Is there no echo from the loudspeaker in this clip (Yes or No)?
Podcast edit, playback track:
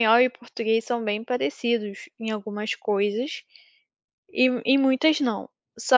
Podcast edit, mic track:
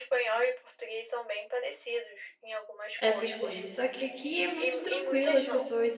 No